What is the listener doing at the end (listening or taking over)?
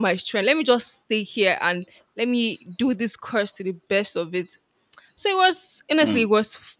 listening